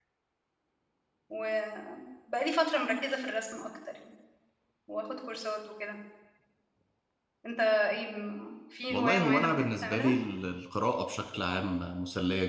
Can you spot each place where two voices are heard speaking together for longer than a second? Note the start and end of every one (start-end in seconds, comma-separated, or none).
8.9-10.1